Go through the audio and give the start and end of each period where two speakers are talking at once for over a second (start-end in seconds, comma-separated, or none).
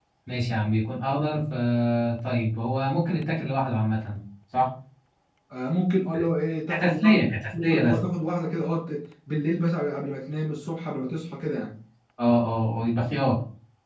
6.7-8.0